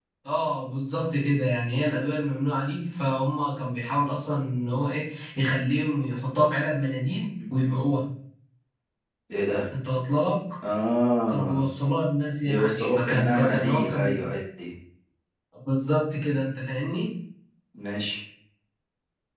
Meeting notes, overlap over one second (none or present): present